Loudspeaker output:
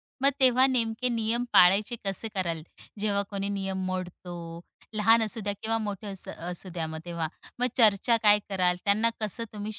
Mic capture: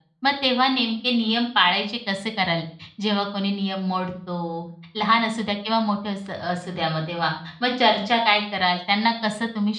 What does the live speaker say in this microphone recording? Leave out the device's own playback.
none

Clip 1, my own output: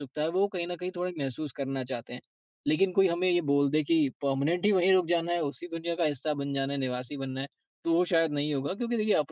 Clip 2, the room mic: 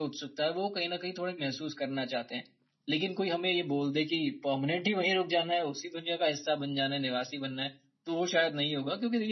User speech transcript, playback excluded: none

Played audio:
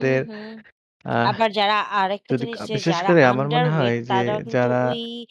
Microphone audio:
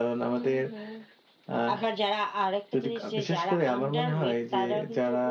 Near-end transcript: none

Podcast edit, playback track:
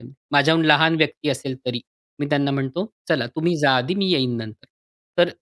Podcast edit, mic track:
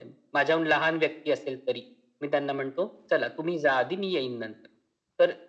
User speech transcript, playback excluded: none

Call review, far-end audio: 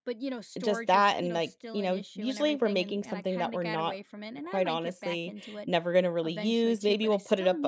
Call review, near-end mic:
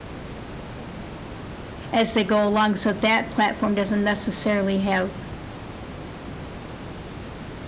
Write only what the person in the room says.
as they go along. So that platform doesn't necessarily have

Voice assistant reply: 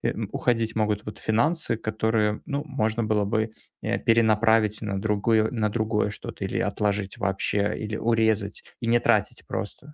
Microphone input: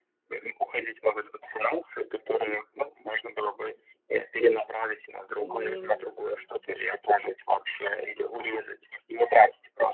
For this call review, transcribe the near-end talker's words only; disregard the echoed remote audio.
И

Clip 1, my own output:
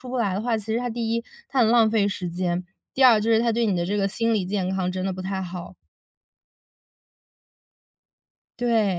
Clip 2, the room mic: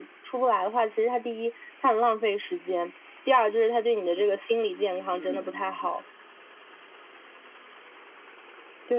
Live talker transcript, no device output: 嗯。

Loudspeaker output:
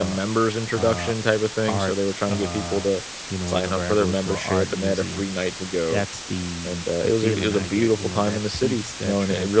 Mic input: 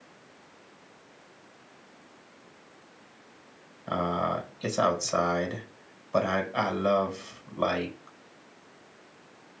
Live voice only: uh it's outside, but I I love like,

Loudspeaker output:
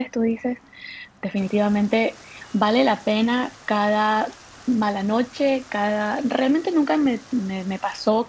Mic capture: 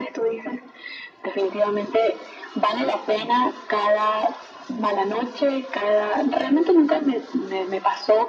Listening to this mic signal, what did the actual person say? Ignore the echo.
none

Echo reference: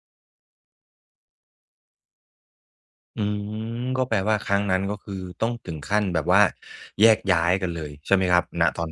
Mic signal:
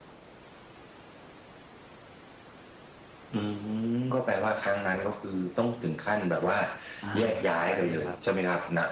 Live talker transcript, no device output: อาใช่ครับ

